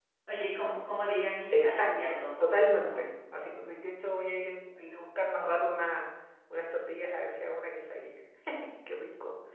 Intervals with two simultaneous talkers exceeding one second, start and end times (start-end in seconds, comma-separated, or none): 1.5-3.0